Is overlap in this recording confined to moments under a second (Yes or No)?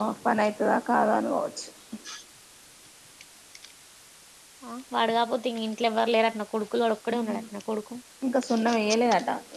Yes